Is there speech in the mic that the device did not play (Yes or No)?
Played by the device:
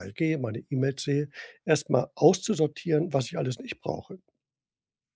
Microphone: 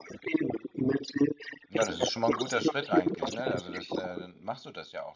Yes